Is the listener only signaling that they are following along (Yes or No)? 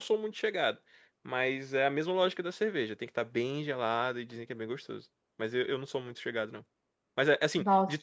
Yes